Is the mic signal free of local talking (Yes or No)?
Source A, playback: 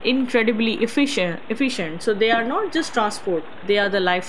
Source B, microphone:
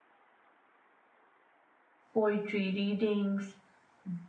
No